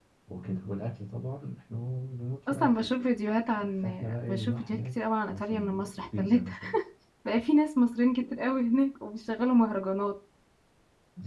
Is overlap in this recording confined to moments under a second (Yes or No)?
No